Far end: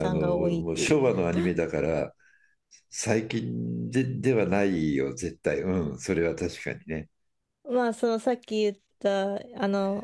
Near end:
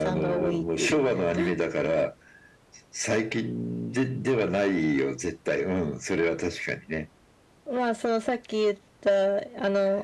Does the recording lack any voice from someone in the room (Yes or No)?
Yes